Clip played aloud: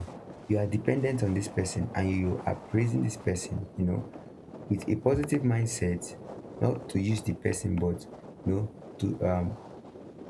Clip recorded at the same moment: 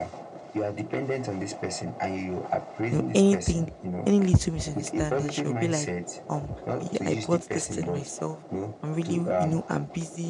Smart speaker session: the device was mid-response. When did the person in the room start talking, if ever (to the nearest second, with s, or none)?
3 s